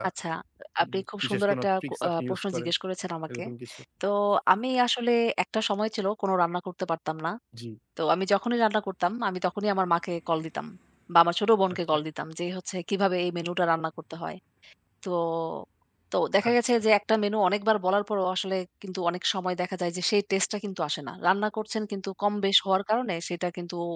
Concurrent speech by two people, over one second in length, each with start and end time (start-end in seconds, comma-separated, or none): 0.8-2.7